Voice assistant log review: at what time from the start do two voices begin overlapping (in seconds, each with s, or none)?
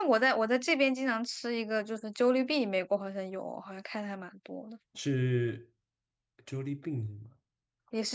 none